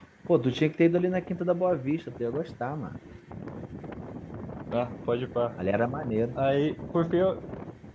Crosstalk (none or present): none